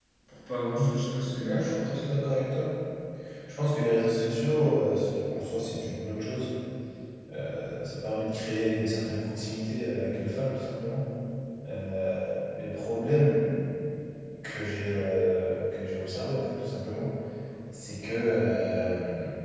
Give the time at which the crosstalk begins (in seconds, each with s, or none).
0.7 s